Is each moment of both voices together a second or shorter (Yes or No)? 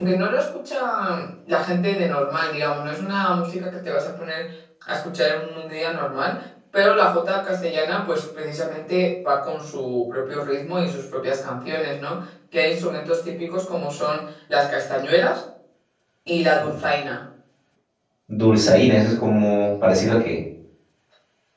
Yes